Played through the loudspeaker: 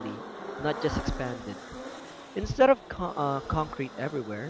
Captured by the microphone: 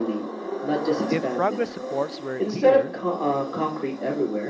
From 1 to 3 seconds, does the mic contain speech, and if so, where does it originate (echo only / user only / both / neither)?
both